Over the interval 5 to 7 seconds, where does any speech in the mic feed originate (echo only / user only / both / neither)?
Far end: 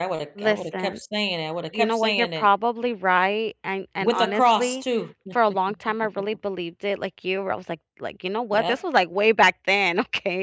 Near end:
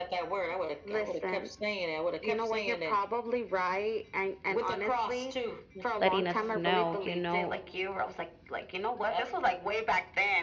both